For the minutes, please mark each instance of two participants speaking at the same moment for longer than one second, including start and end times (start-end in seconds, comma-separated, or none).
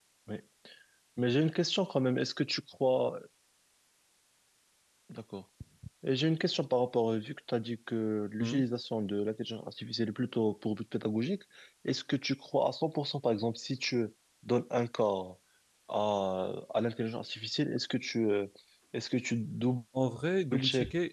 none